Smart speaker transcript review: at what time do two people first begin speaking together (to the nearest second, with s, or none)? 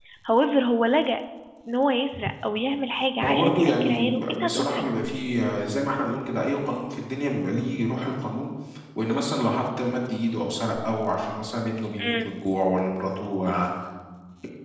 3 s